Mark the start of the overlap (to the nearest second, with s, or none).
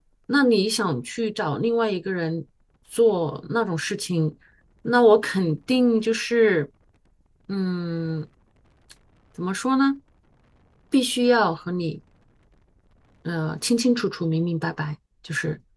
none